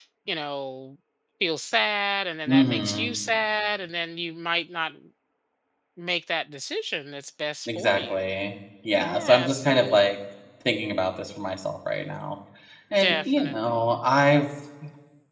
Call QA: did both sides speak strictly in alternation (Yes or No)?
No